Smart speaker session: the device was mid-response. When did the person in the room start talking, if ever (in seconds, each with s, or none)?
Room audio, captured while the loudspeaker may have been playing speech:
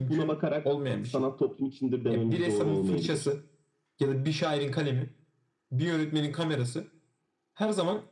none